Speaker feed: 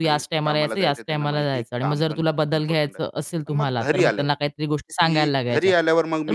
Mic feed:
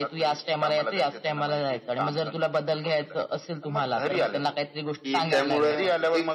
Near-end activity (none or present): present